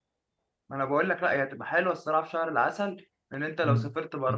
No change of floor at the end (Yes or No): No